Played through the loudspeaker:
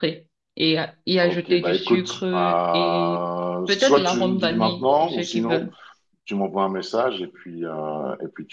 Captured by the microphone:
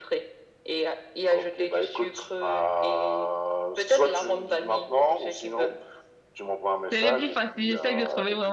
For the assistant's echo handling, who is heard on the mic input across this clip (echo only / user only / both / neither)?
both